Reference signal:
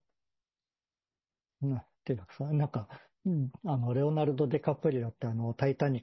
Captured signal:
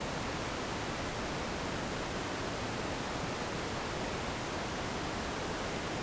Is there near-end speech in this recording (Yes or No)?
No